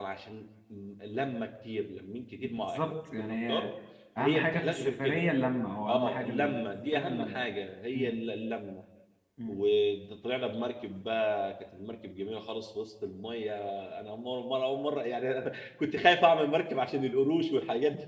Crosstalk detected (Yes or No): Yes